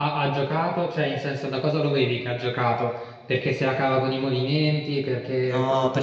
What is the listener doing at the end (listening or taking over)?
taking over